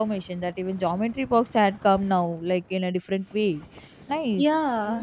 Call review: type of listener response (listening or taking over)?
taking over